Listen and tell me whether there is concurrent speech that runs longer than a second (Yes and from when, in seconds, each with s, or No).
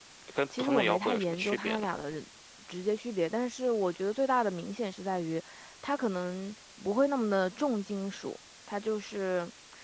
Yes, from 0.6 s